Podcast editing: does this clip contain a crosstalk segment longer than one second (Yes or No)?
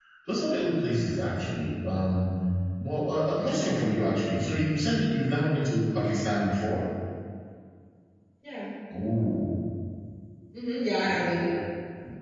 No